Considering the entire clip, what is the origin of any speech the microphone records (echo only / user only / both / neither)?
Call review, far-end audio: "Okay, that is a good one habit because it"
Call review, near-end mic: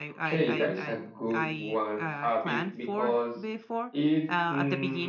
both